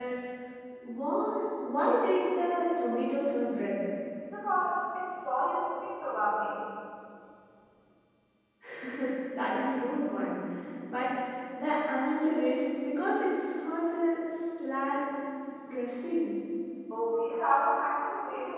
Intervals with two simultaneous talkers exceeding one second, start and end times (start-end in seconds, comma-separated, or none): none